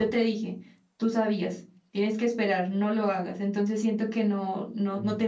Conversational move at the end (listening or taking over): listening